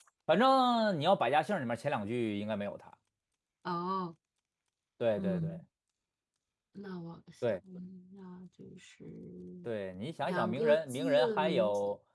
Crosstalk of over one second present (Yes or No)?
Yes